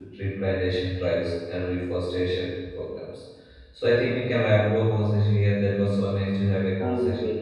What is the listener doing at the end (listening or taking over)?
listening